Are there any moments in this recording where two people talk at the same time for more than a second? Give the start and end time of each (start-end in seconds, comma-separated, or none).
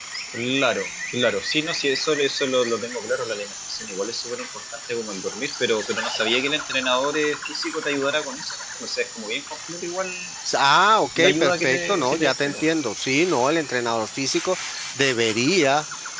11.2-12.6